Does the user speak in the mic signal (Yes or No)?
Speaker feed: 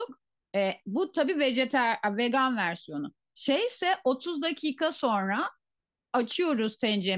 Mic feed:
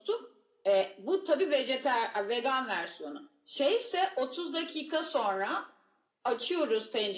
No